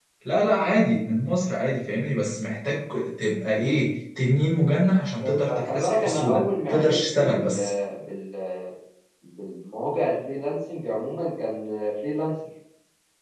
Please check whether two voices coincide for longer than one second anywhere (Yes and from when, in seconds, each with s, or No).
Yes, from 5.2 s